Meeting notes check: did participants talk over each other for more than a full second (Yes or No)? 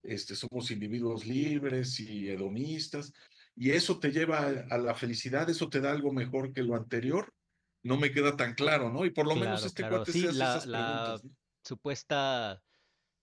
Yes